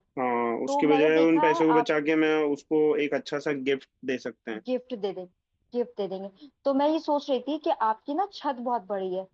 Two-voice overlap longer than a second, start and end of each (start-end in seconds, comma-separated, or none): 0.7-1.9